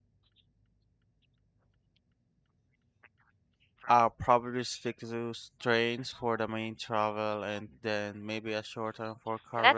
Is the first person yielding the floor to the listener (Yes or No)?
Yes